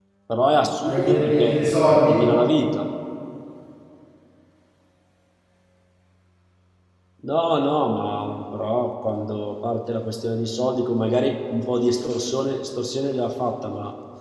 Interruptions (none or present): present